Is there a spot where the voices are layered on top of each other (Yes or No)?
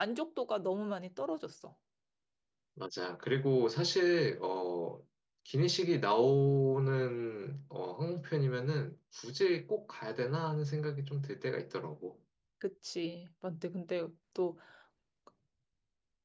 No